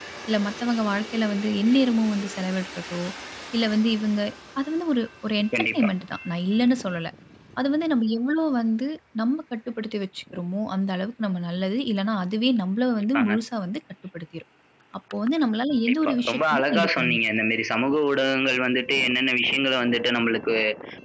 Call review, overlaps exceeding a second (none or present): present